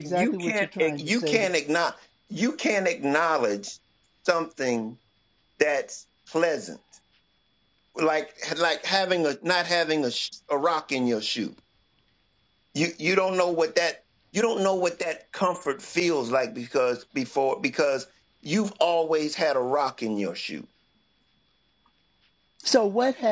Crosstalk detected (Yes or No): Yes